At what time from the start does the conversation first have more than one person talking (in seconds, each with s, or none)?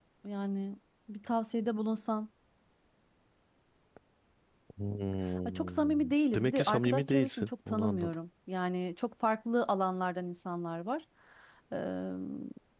5.5 s